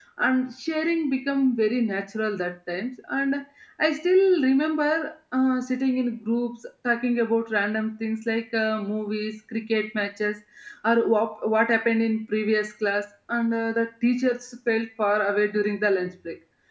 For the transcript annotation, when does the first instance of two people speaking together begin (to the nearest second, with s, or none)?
none